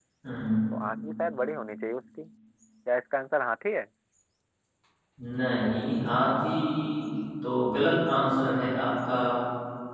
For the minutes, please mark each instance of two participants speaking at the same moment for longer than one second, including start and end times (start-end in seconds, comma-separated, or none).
none